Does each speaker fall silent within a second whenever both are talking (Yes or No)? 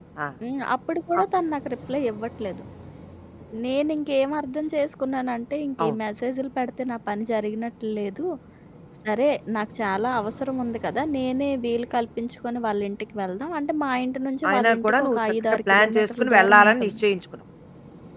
No